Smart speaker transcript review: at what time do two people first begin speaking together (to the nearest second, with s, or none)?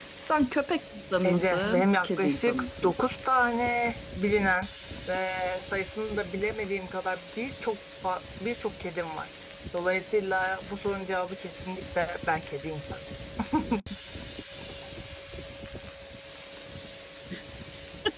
1 s